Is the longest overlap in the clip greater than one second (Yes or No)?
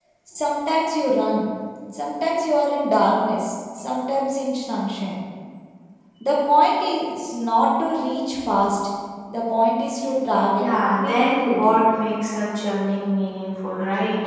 Yes